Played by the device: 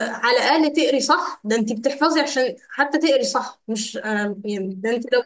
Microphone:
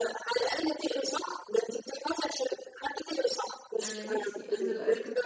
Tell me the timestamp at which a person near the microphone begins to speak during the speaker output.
4 s

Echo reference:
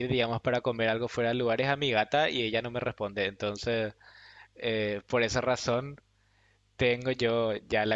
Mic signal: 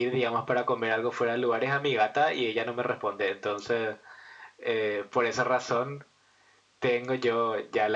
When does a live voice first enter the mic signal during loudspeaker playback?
none

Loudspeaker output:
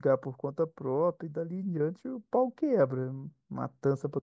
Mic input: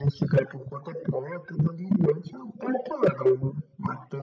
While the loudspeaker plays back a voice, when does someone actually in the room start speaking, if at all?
none

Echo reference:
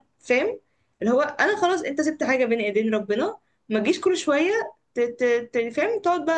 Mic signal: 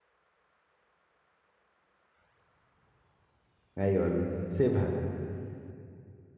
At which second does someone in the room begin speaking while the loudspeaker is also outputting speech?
4 s

